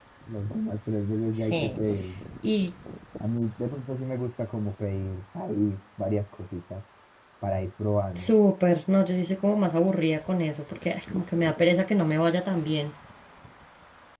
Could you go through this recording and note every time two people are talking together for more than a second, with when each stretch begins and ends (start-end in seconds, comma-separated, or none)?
none